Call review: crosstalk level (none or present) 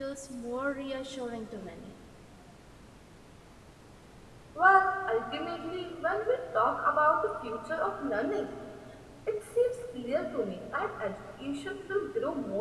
none